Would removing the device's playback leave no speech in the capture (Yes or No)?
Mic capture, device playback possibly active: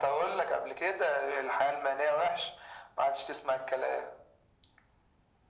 Yes